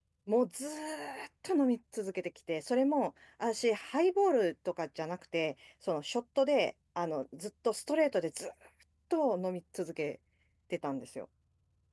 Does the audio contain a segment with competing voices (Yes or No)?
No